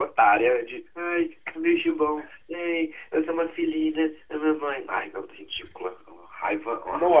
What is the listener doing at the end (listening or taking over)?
taking over